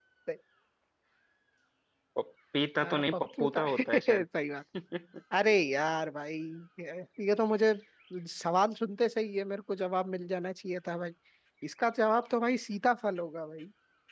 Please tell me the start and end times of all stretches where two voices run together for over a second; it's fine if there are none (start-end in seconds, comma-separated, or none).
2.8-4.2